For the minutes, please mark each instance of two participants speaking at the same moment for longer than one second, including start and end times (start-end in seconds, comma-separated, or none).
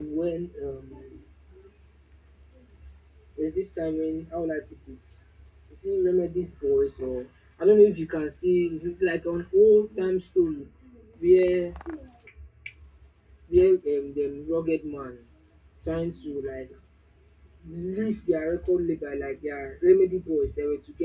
none